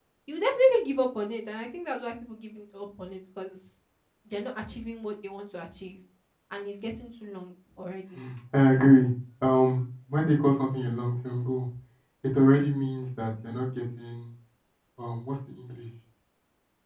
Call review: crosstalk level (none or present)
none